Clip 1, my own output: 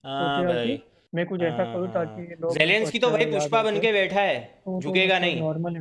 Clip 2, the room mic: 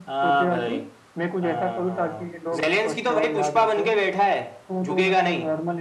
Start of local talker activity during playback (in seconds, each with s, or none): none